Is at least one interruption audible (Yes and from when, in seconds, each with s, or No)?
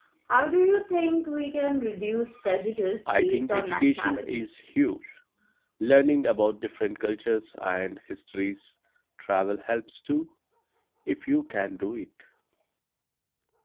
Yes, from 3.1 s